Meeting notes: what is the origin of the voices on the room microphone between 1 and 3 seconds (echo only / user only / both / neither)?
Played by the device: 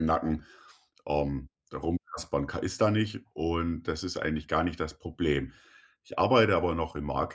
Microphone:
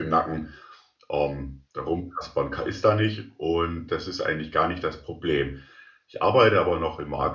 echo only